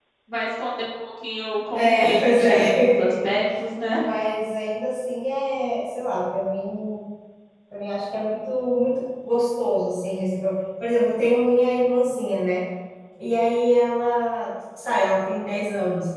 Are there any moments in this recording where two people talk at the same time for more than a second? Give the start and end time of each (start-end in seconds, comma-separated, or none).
1.7-3.1